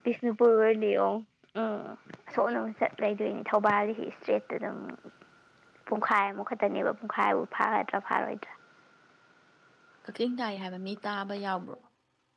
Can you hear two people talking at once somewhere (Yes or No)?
No